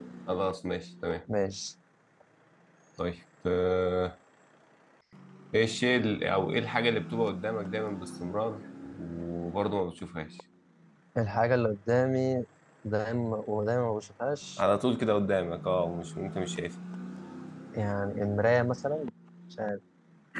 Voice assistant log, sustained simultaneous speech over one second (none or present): none